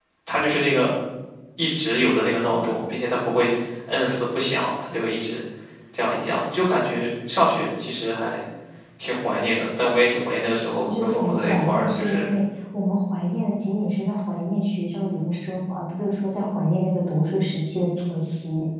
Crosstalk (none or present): present